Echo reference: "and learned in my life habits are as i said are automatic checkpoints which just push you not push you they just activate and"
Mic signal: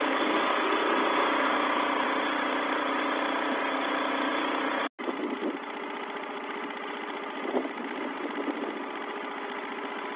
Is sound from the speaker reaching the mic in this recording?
No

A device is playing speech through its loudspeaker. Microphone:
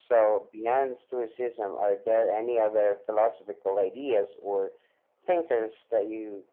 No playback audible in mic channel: No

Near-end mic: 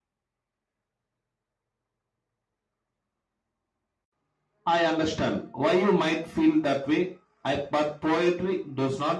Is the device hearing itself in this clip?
No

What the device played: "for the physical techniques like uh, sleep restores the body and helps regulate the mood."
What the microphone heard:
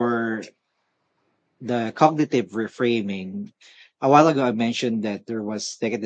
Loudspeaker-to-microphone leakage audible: No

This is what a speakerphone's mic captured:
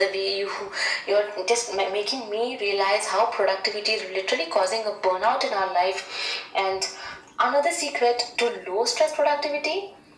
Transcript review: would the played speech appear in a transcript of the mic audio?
Yes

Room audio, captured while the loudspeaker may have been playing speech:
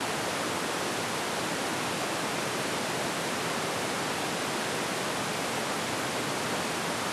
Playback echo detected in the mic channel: No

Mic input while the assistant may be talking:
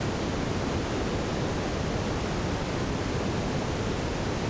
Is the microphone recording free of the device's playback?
Yes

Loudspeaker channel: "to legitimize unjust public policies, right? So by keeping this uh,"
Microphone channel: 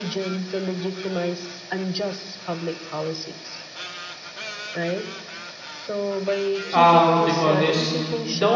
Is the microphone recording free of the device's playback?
No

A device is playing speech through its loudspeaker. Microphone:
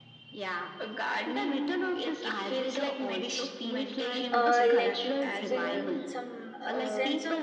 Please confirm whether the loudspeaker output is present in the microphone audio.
Yes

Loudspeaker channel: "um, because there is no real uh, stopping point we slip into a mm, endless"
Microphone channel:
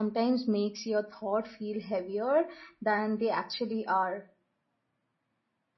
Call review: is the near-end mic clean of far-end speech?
Yes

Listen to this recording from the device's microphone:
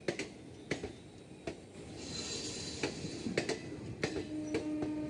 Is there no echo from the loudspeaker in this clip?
Yes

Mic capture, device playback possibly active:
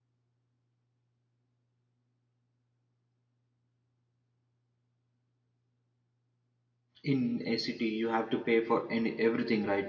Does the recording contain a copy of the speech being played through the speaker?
No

